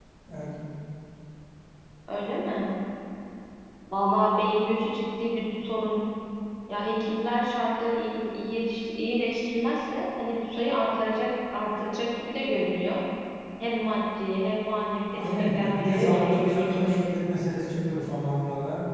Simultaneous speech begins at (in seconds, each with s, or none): 15.1 s